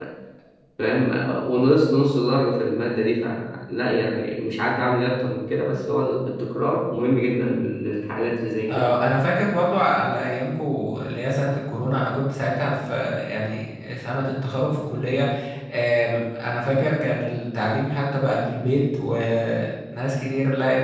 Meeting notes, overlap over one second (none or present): none